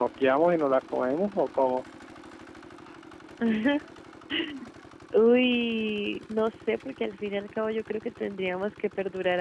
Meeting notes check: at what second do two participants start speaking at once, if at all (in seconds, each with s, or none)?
none